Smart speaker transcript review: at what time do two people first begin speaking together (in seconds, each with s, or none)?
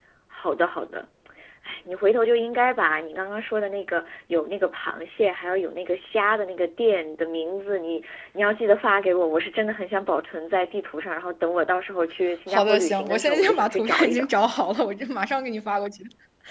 12.5 s